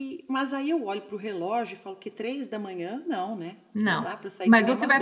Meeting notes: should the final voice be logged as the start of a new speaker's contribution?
Yes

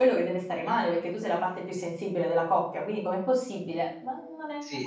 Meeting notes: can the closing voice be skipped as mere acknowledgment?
No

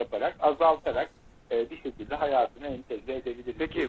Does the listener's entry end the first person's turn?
Yes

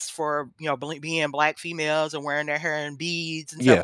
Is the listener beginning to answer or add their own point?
No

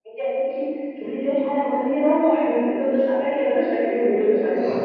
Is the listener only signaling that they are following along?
No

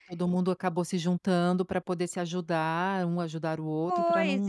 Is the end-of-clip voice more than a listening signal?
Yes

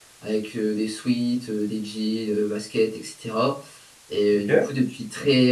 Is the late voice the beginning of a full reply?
No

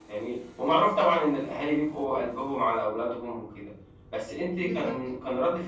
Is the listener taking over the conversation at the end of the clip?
No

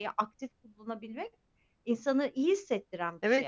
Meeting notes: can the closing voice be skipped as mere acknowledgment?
No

